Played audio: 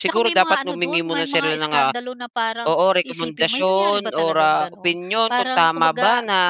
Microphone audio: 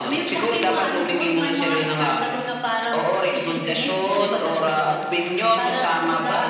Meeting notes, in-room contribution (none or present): none